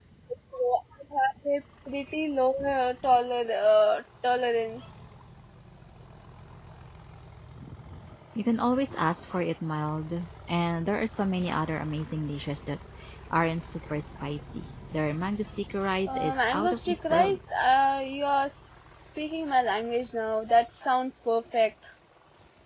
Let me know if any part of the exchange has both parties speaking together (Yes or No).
Yes